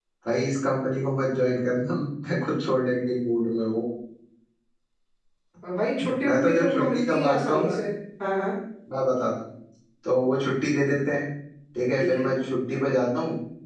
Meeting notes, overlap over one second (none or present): present